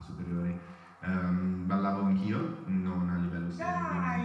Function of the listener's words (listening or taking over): listening